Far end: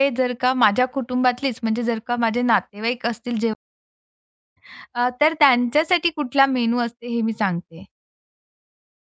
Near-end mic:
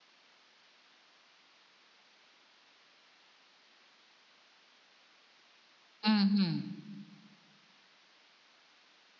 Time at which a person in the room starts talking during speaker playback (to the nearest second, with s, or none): 6 s